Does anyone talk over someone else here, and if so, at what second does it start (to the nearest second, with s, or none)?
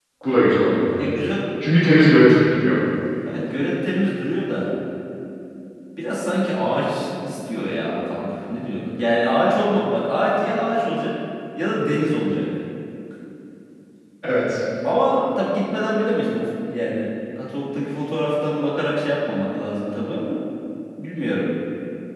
none